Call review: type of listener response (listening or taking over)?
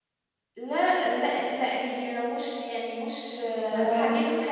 listening